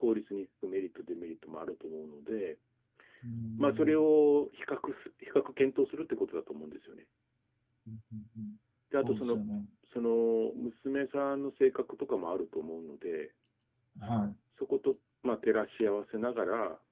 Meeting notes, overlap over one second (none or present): none